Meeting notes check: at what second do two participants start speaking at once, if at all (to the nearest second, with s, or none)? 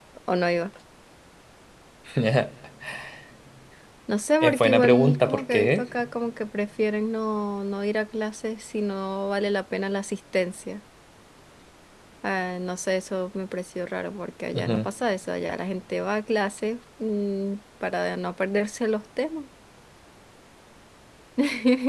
4 s